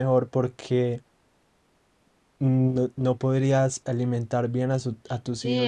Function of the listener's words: taking over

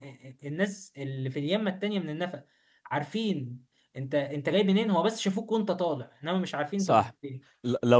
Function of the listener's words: taking over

